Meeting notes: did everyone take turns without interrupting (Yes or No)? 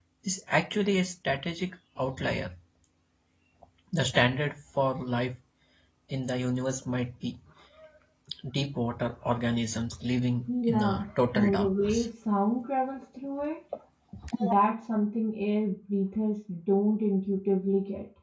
No